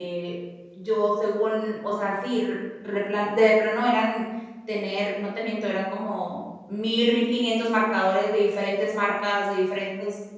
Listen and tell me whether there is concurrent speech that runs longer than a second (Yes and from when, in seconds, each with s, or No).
No